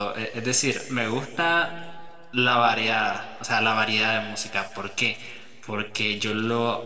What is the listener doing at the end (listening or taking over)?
listening